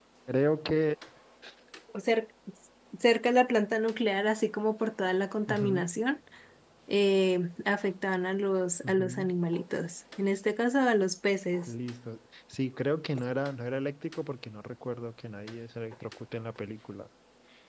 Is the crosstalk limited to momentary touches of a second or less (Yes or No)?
Yes